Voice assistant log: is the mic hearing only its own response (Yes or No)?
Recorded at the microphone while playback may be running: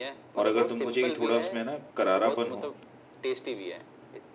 No